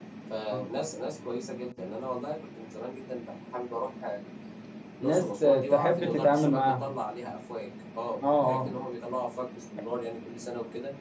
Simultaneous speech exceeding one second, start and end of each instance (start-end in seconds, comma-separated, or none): 5.0-6.9